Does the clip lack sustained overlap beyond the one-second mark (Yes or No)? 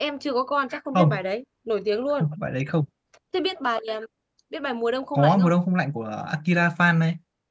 Yes